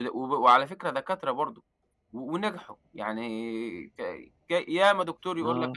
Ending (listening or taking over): listening